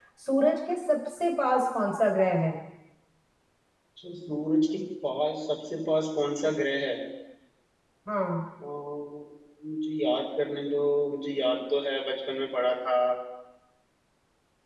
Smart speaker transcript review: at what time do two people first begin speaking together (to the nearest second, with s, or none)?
none